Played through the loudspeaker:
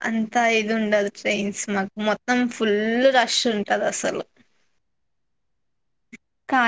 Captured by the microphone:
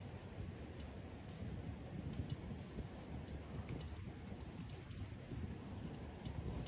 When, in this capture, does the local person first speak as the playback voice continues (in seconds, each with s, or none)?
none